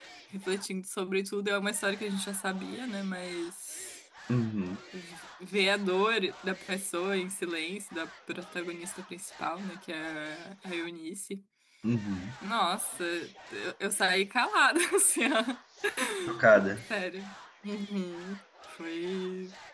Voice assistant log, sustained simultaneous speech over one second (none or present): none